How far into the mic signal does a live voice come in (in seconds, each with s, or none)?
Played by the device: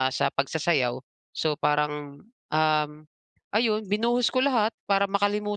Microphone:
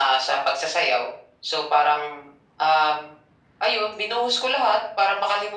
none